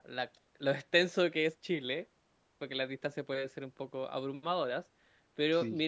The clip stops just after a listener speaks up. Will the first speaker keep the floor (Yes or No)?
Yes